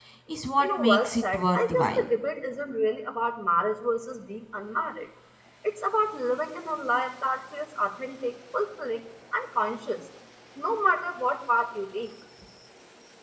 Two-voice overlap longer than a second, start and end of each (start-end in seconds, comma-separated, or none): 0.6-2.0